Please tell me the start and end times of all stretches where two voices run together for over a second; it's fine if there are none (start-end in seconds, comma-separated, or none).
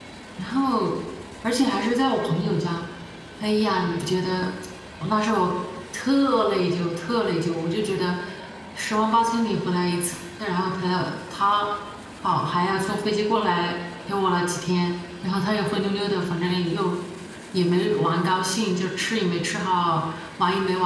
none